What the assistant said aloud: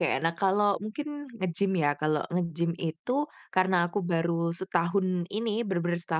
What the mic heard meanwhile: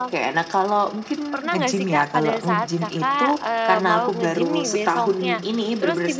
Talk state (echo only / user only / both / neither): both